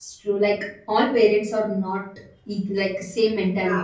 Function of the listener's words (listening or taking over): listening